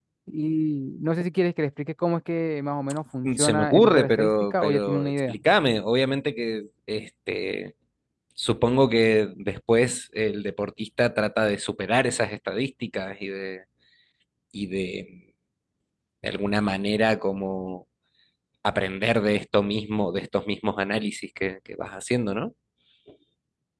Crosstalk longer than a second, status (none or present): present